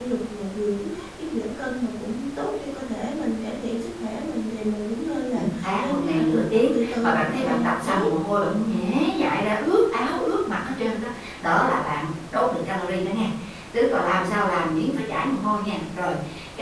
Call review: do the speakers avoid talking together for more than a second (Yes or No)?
No